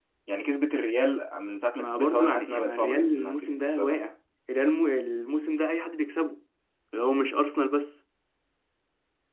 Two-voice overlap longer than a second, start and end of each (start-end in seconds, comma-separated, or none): 1.8-4.1